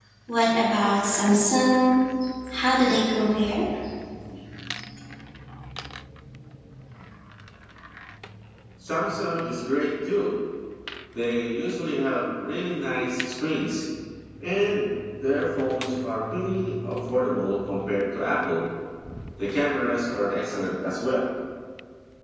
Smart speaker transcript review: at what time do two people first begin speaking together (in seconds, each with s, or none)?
none